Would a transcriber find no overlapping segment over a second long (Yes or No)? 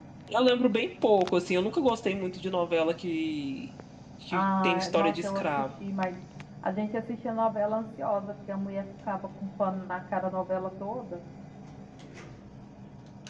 No